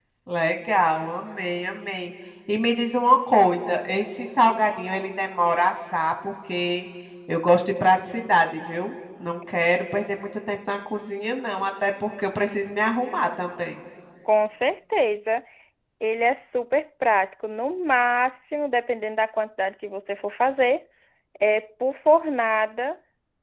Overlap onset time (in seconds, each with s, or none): none